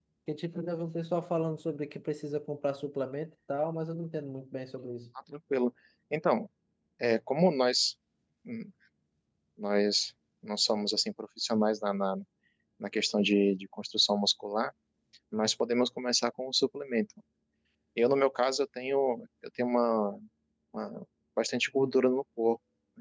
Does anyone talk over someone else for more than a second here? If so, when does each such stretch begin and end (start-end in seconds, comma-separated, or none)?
none